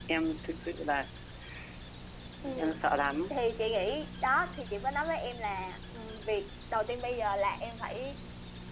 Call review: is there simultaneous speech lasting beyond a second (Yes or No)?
No